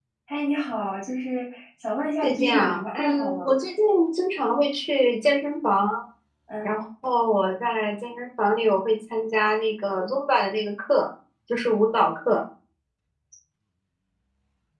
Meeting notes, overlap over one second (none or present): present